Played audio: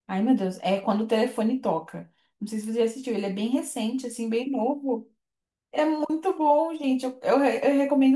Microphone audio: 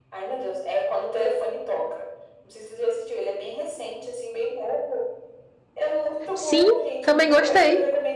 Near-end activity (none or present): present